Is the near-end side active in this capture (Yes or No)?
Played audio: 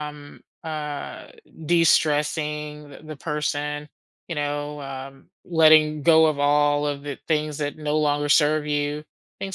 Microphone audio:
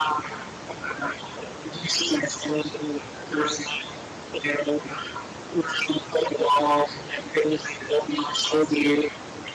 No